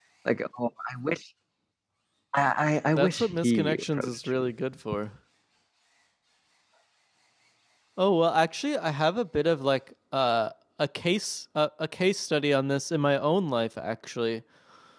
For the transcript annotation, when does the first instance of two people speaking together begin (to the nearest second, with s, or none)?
3 s